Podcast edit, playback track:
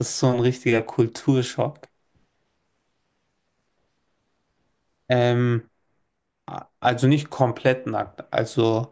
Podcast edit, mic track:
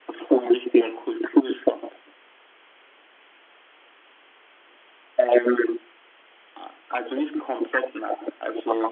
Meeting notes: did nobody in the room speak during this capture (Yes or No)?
Yes